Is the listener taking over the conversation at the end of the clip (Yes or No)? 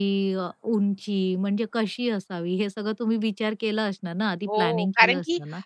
Yes